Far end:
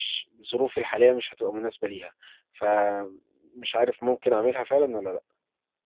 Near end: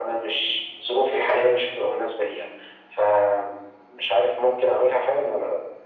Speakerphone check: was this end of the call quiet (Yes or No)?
Yes